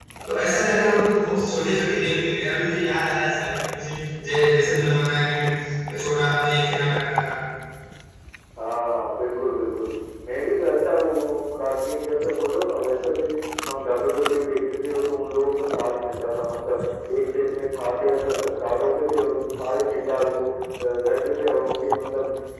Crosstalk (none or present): none